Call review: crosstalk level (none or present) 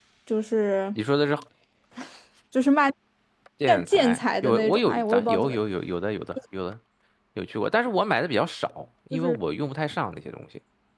present